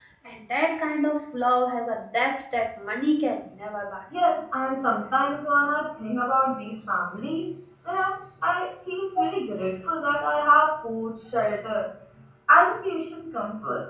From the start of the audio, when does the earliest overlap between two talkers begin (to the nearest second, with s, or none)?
none